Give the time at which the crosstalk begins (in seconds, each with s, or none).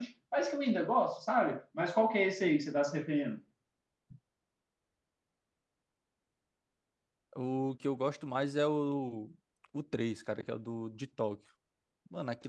none